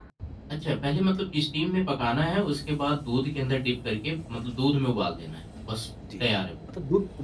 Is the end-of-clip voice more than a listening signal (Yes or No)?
Yes